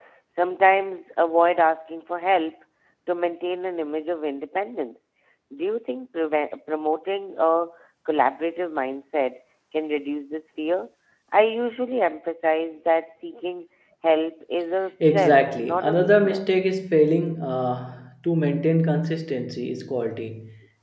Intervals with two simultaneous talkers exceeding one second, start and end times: 15.0-16.4

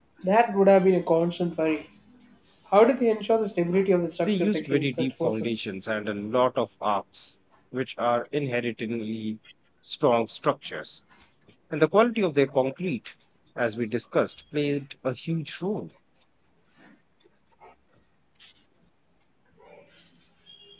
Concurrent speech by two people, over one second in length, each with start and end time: 4.2-5.7

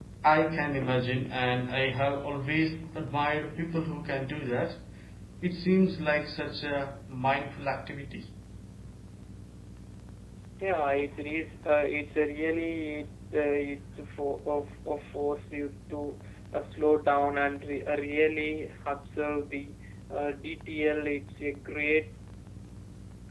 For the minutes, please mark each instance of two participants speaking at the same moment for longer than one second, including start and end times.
none

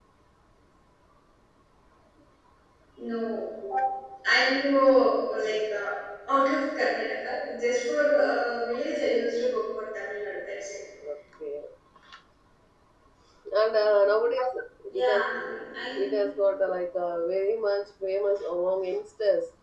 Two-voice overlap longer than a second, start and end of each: none

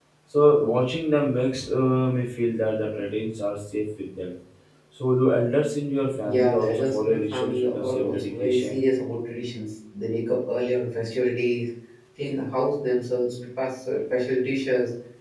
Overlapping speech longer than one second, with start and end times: 6.2-8.8

